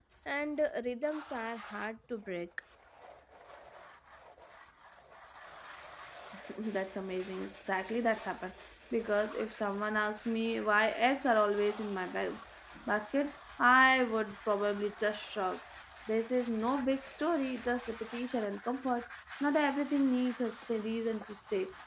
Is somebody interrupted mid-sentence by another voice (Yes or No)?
No